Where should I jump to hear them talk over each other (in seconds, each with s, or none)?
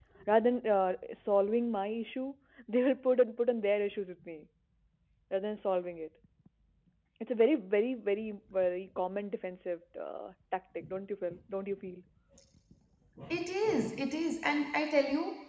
none